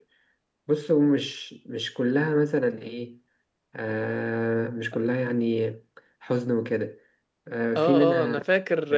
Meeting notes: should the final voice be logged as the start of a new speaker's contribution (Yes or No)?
Yes